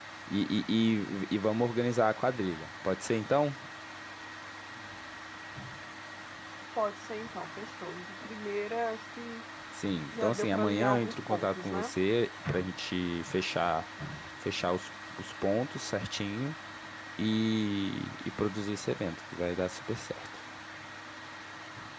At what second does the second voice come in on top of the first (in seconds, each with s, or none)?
10.1 s